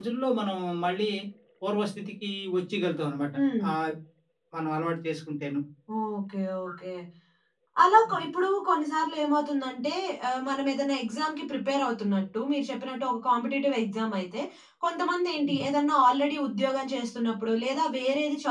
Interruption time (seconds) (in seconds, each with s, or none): none